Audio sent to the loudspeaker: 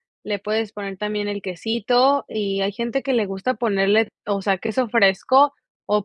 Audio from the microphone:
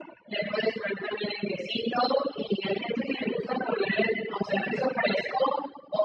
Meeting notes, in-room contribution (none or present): none